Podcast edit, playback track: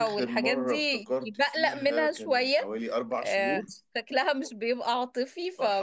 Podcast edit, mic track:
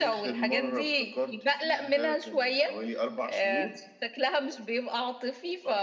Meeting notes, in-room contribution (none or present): none